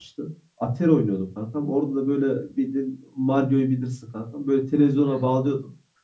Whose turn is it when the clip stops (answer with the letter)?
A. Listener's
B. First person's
B